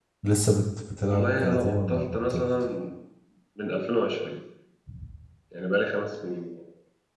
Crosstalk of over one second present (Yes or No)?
Yes